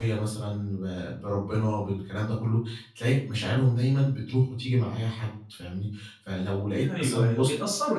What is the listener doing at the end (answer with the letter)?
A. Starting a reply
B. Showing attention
A